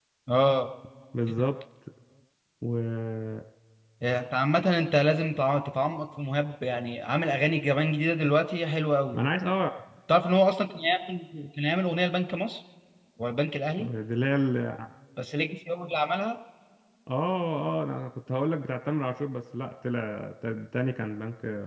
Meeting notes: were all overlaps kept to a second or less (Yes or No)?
Yes